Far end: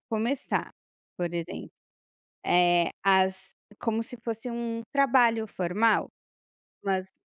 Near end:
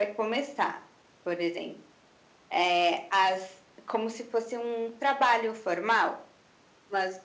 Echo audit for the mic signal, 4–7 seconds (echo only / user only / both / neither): echo only